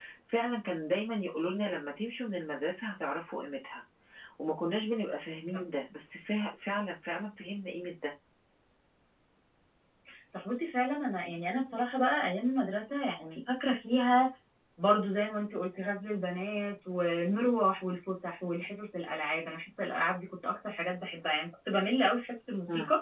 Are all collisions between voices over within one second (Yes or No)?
Yes